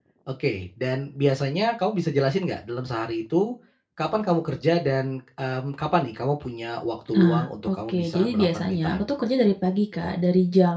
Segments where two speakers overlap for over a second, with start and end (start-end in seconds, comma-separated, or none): 7.1-9.1